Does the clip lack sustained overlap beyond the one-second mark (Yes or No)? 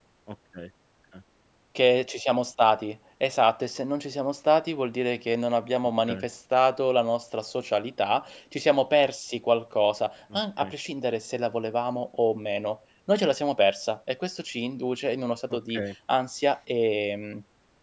Yes